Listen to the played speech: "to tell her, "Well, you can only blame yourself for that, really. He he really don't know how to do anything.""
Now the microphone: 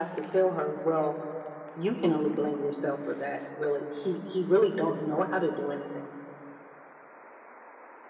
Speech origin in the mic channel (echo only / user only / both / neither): both